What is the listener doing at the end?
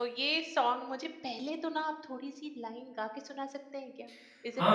taking over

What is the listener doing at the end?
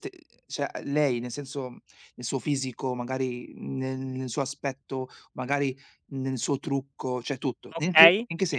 taking over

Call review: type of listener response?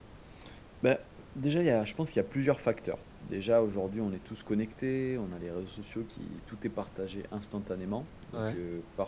listening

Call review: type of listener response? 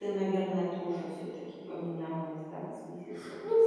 taking over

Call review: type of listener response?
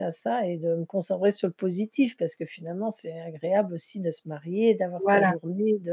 listening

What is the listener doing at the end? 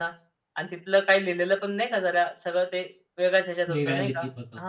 taking over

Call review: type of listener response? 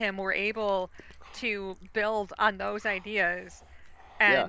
listening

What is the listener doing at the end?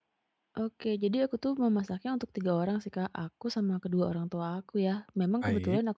listening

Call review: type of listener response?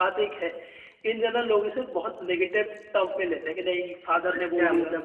taking over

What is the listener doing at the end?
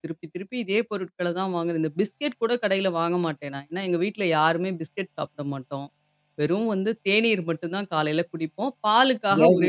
listening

